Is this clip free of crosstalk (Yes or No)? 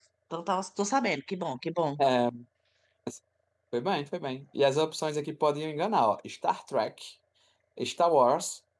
Yes